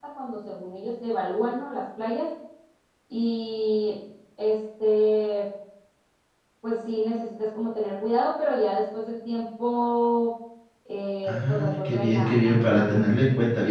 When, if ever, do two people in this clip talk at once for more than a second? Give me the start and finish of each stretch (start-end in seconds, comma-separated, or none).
11.3-13.1